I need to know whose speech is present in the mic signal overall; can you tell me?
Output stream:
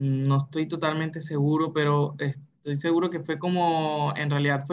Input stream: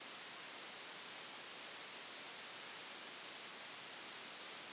neither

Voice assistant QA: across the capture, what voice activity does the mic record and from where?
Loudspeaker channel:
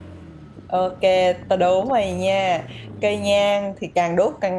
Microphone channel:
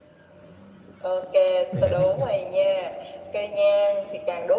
both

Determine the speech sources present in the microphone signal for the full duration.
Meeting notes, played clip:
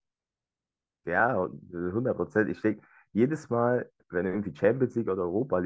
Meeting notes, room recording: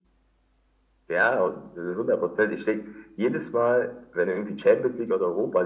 echo only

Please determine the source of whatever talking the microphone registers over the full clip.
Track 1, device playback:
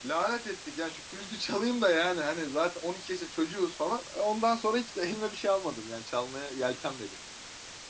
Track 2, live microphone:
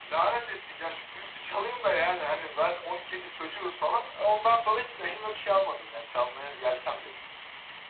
echo only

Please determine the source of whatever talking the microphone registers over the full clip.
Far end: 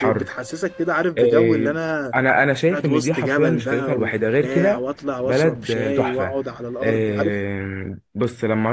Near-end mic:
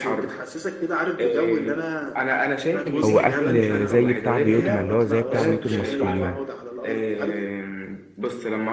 both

